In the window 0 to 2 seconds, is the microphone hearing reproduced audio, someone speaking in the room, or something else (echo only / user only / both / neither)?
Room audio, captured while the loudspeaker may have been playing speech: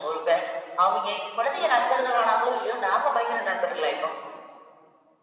echo only